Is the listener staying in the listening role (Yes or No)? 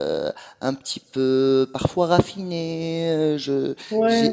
No